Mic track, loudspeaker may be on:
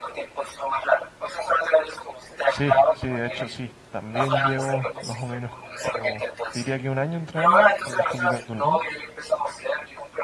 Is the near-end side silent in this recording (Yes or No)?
No